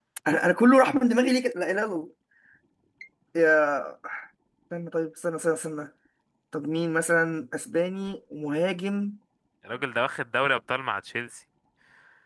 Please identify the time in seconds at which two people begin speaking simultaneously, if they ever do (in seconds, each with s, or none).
none